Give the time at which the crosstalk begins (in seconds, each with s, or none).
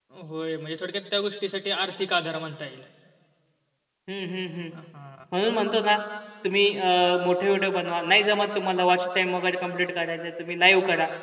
none